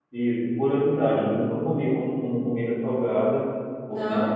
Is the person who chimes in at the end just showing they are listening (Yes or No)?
Yes